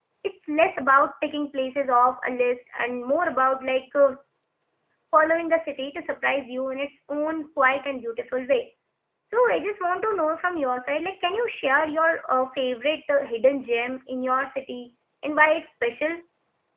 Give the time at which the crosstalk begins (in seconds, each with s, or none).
none